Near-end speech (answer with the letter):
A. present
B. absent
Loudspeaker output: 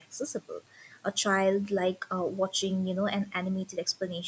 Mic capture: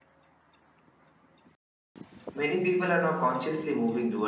A